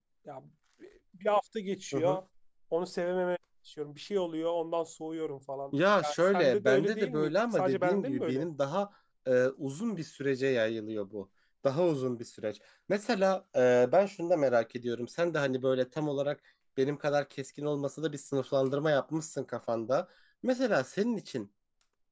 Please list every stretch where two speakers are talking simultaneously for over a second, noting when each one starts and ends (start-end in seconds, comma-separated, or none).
6.0-8.4